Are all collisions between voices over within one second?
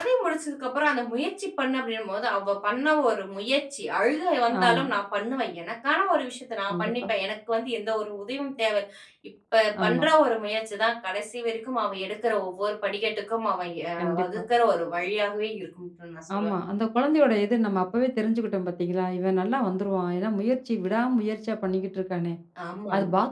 Yes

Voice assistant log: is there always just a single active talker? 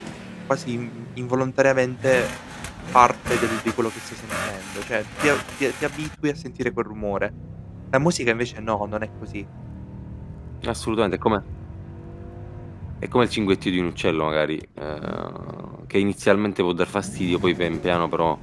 Yes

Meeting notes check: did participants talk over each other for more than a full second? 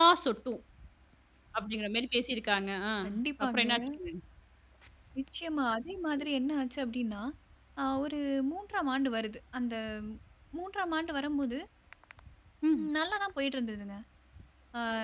No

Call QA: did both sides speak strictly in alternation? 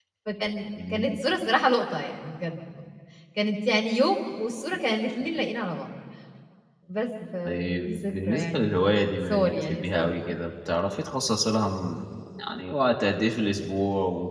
No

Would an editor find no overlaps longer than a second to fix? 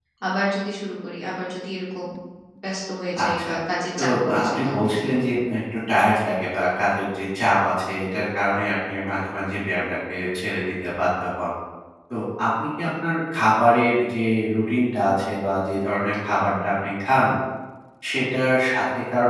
No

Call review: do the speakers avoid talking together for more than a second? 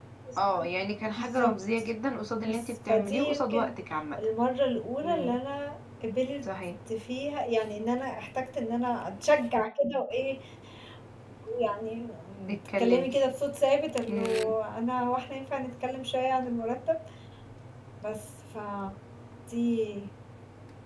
No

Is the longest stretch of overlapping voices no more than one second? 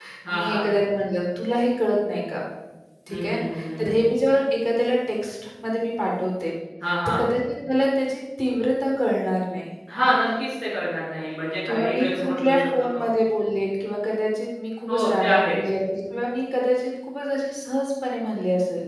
No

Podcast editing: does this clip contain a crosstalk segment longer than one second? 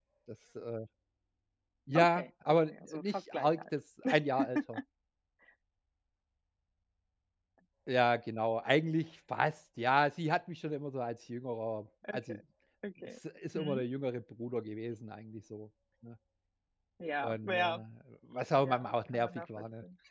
Yes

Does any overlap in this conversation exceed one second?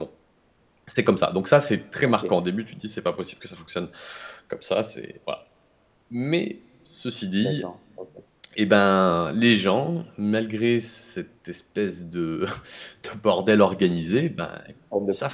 No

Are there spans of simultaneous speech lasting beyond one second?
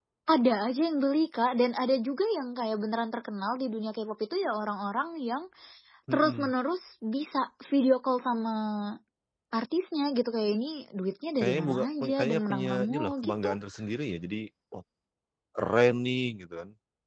Yes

